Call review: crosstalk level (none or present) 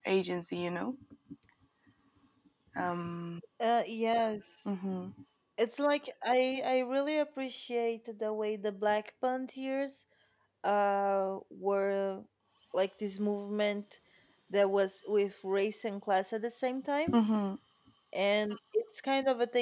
none